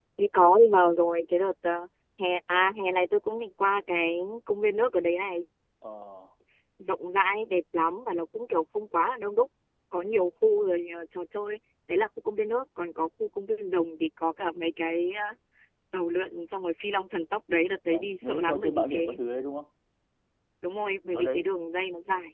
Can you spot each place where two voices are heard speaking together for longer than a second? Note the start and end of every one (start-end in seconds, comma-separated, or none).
17.9-19.2